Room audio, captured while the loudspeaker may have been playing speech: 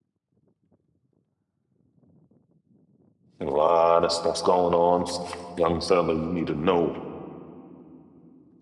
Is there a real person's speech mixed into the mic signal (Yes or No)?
Yes